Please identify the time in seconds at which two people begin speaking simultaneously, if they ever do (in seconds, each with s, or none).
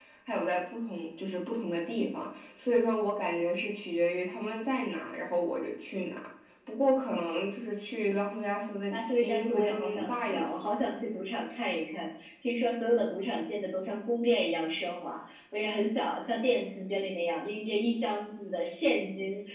8.9 s